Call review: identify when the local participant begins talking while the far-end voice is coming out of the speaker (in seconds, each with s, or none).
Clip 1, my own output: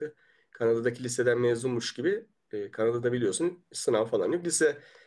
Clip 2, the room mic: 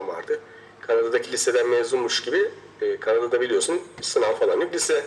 none